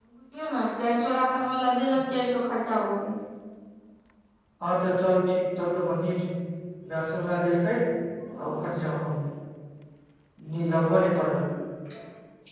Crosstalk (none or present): none